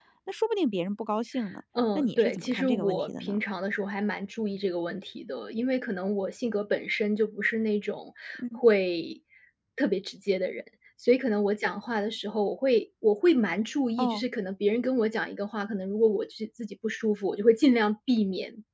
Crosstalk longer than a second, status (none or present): present